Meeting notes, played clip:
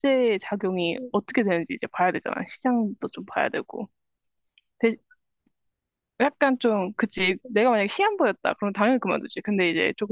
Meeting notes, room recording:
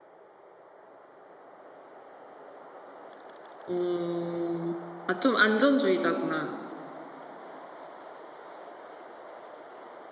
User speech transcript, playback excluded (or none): 어, 아, 좀 안전주의자구나.